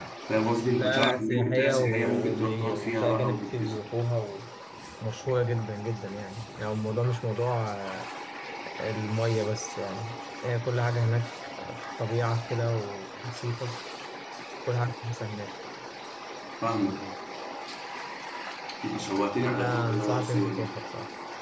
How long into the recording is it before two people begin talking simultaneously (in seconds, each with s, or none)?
0.7 s